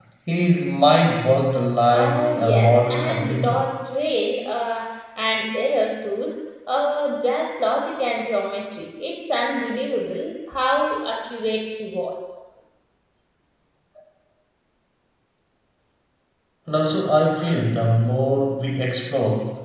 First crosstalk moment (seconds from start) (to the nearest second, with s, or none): 2 s